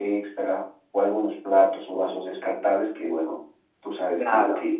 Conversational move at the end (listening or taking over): listening